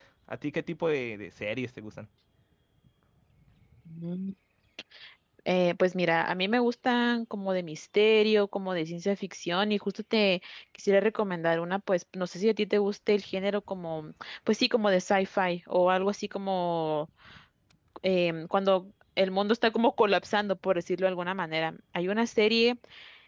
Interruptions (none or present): none